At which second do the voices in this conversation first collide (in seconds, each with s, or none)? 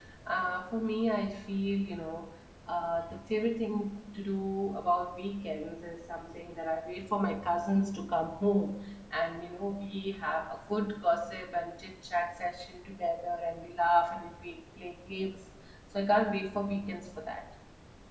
none